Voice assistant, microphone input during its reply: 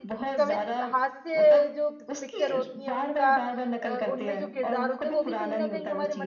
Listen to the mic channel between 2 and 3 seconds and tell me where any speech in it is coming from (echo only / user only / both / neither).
both